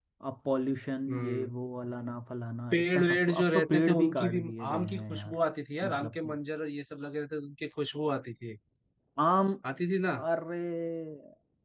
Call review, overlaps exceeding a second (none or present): present